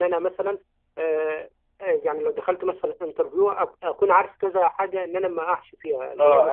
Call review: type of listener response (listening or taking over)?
taking over